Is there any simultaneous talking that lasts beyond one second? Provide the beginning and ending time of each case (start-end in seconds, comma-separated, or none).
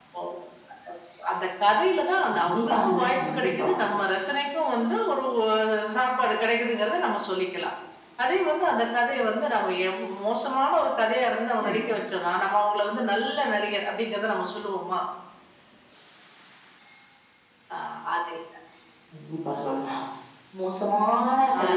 2.3-3.7